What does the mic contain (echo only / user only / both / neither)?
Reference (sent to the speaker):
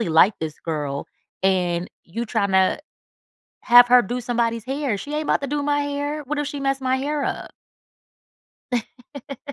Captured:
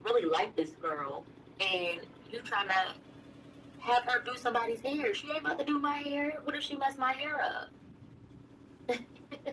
echo only